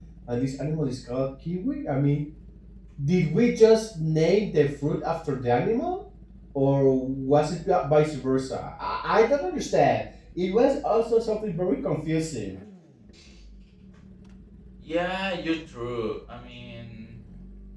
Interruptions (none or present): none